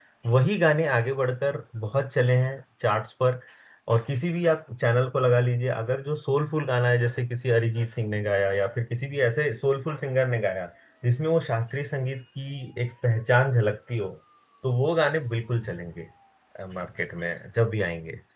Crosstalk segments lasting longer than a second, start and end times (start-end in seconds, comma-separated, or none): none